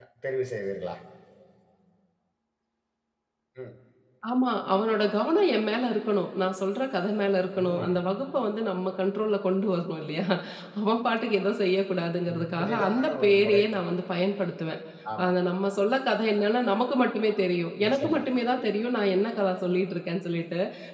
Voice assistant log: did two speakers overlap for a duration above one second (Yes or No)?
Yes